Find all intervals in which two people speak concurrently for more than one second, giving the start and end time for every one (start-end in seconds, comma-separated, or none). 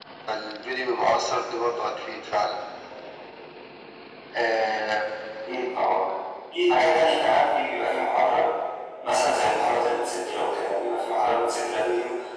none